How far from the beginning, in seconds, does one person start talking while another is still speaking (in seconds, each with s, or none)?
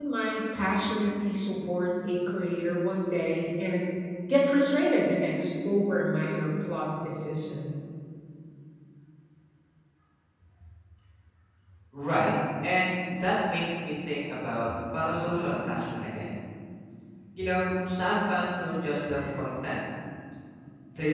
none